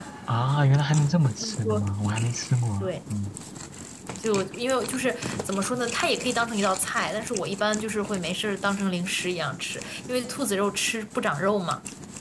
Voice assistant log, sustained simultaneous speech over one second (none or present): none